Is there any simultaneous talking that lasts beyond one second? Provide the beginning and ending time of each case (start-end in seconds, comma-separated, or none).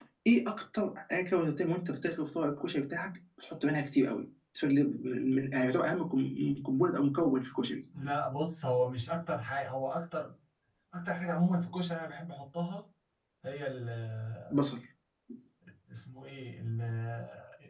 none